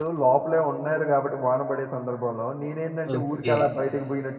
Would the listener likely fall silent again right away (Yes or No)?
Yes